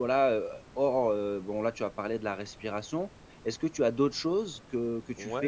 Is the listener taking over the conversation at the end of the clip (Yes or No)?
Yes